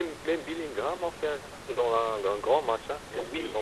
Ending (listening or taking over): taking over